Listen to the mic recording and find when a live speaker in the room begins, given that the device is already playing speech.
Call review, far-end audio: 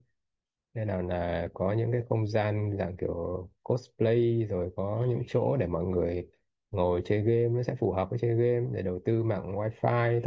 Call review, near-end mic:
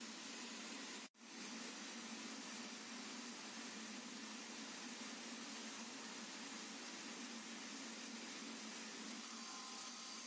none

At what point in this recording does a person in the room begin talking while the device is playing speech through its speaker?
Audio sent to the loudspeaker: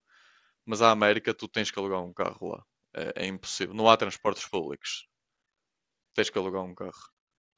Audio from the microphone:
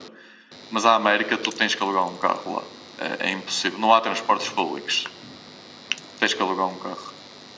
none

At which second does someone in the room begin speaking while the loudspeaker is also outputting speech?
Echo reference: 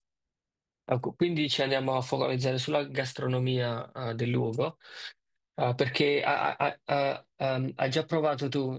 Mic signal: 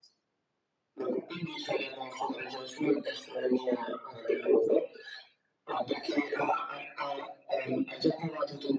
none

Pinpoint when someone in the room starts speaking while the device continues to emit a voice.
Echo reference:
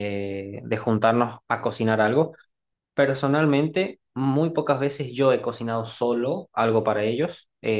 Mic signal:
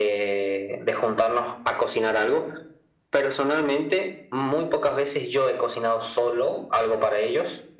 none

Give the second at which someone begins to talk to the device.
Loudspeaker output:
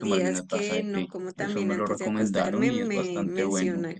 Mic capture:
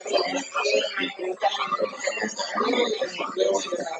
none

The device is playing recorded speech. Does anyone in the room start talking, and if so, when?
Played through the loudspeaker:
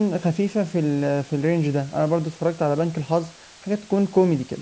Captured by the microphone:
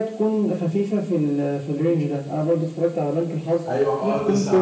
3.7 s

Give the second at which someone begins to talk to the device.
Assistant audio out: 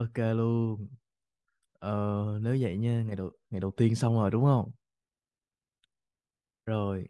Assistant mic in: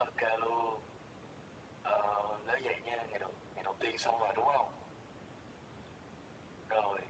none

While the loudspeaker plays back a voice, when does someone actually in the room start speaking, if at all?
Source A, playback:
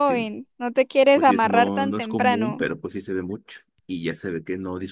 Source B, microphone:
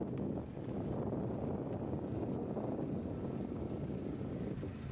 none

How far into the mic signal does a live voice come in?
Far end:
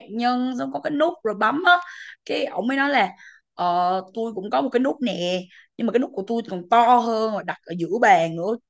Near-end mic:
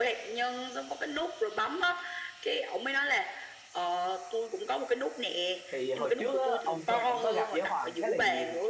5.7 s

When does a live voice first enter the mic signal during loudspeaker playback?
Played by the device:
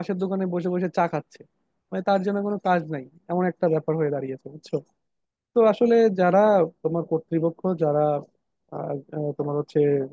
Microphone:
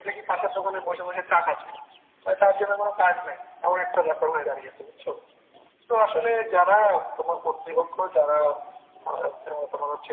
none

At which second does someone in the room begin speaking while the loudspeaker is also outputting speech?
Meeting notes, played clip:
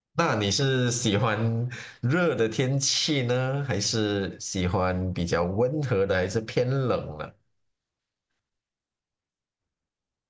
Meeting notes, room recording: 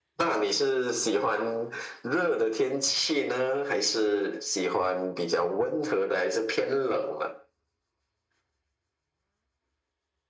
none

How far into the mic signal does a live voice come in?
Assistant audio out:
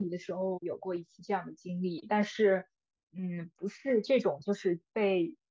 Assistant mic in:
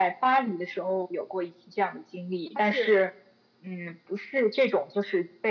2.5 s

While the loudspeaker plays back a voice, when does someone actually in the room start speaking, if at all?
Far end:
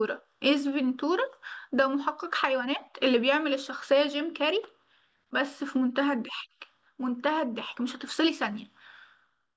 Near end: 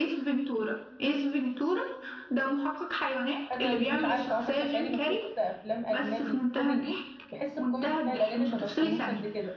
3.5 s

